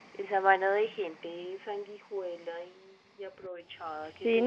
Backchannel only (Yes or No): No